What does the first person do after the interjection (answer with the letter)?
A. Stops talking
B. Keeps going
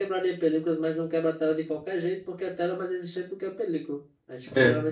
B